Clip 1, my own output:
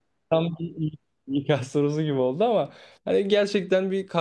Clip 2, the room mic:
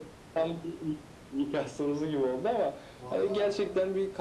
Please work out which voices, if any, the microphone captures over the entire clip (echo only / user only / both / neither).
both